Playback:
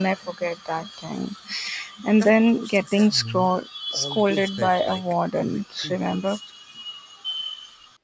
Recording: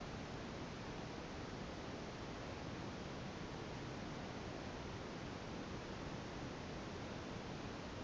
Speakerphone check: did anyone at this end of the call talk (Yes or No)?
No